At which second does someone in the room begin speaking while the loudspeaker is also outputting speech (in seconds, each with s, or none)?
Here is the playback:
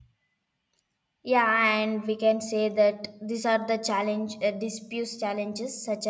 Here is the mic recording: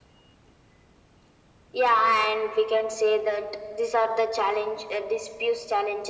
none